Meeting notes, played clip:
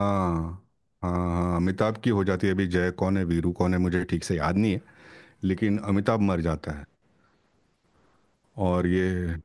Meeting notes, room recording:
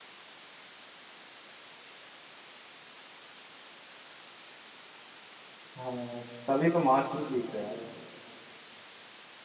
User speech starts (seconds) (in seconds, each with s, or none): 5.8 s